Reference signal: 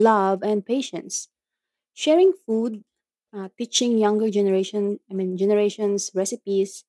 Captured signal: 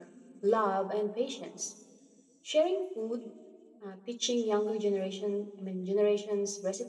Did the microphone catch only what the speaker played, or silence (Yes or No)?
Yes